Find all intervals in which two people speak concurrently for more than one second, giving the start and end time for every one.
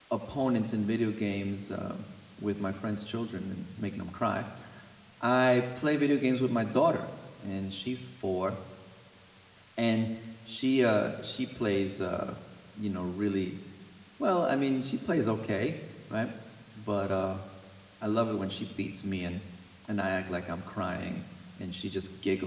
none

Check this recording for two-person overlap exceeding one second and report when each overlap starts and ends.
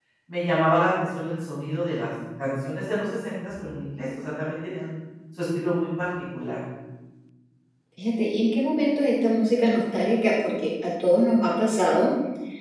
none

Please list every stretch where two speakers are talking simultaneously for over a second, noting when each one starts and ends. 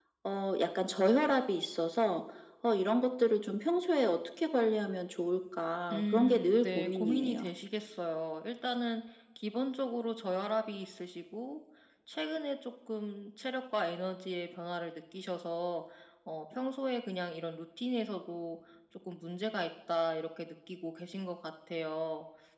5.9-7.5

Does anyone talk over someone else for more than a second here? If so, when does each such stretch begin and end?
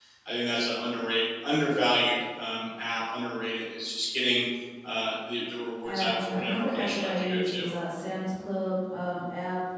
5.8-7.7

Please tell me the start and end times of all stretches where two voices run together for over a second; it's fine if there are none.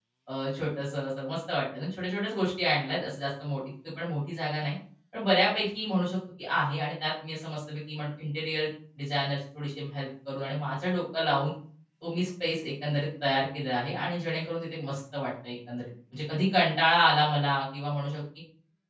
none

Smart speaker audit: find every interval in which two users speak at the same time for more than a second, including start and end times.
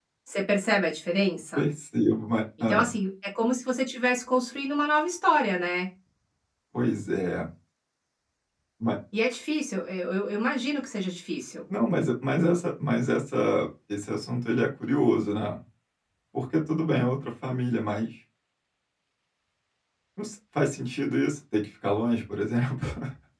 none

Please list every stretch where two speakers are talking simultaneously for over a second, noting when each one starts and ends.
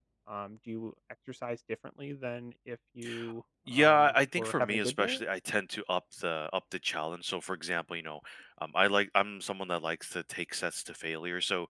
3.7-5.2

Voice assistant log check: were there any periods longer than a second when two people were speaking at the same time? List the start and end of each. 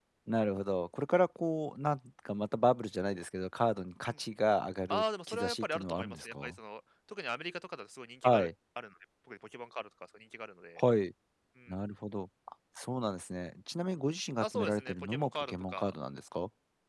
4.9-6.5, 14.4-15.9

